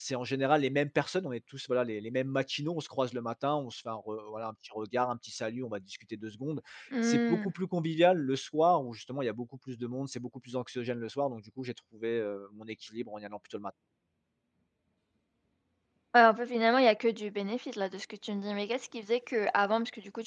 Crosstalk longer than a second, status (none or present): none